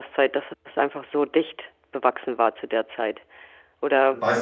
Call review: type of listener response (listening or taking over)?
taking over